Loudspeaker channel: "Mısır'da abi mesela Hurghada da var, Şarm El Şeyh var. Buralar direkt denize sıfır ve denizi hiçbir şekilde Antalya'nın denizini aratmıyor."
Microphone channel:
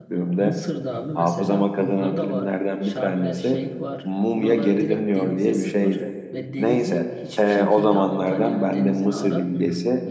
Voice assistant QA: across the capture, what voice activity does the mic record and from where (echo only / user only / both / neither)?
both